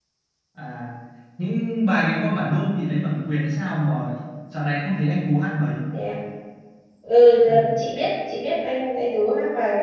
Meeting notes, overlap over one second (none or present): none